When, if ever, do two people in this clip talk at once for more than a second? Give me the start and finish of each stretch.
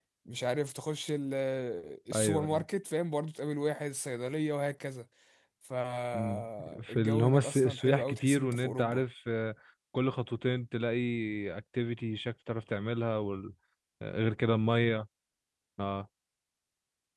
6.1-9.0

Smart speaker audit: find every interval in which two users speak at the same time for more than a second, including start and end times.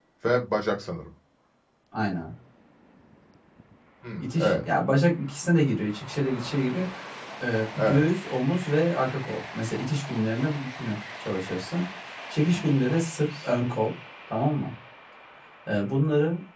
none

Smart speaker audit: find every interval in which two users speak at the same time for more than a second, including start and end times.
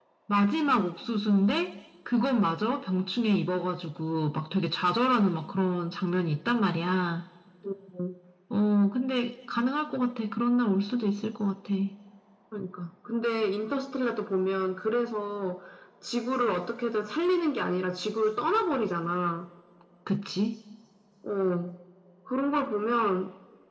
none

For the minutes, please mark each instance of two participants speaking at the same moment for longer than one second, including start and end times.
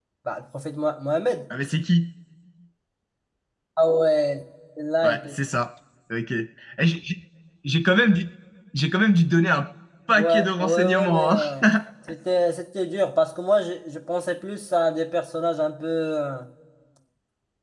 10.2-11.4

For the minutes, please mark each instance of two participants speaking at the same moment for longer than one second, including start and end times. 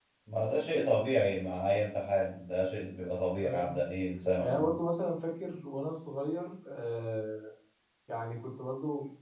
none

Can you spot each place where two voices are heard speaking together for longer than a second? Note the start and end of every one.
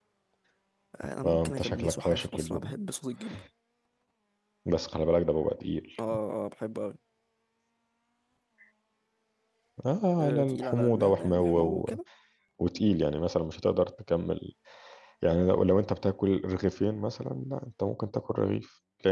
1.2-2.7, 10.2-12.0

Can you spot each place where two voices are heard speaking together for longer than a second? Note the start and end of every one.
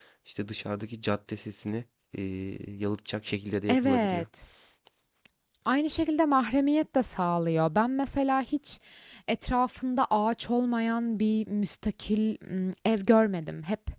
none

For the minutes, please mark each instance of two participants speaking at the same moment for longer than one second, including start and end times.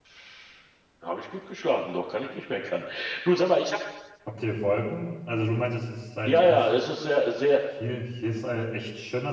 none

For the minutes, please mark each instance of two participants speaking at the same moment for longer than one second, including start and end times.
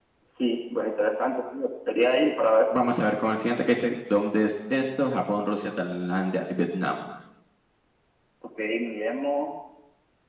none

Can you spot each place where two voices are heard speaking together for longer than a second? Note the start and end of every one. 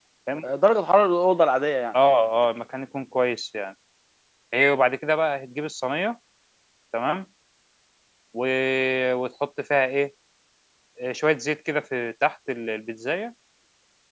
none

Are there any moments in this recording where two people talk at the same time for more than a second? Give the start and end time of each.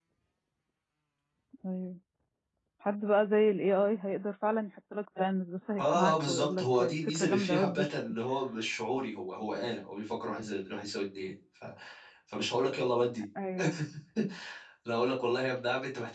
5.8-7.9

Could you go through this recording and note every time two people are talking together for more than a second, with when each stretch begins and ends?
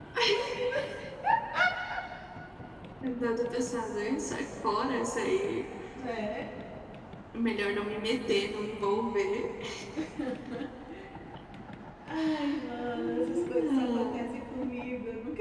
12.9-14.3

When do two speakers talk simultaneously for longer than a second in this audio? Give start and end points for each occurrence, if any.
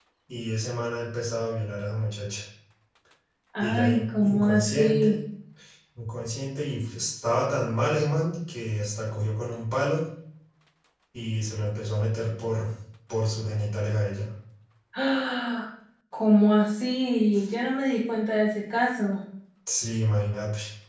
3.6-5.2

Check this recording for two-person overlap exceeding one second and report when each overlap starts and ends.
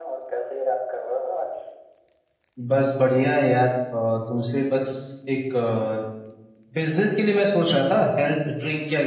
none

